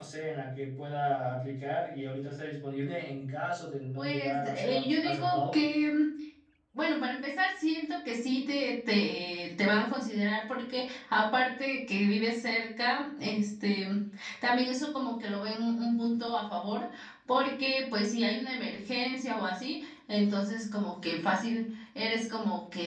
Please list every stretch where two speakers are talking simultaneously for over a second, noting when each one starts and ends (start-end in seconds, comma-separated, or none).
4.0-5.6